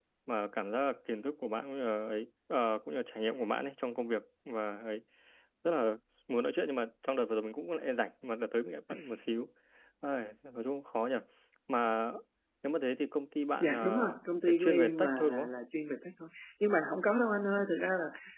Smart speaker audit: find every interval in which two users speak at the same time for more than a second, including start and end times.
13.6-15.5

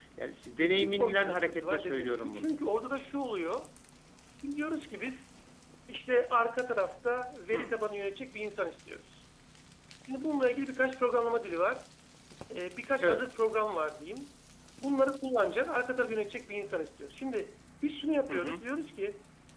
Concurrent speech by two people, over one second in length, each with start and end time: 0.6-2.5

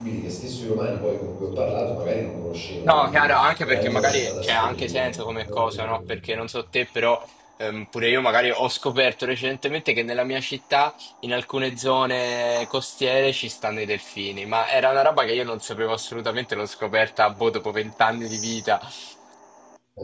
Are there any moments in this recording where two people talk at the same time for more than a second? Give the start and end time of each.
2.8-6.3

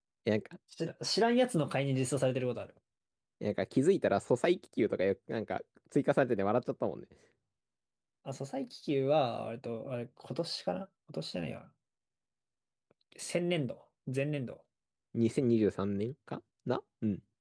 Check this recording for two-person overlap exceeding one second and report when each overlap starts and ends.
none

